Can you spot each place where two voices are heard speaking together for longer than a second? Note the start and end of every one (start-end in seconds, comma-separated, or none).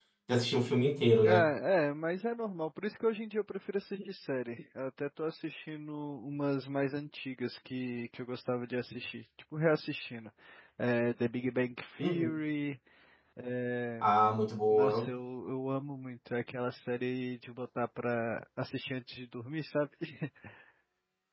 none